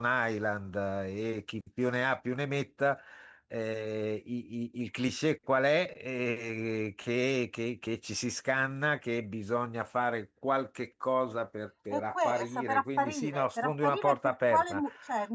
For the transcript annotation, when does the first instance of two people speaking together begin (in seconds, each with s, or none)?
11.9 s